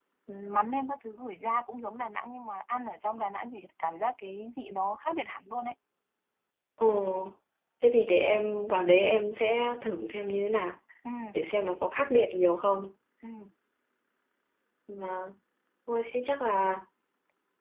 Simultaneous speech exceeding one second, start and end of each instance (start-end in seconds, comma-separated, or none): none